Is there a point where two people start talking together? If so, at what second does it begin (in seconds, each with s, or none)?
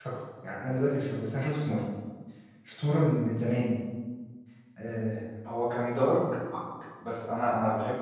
none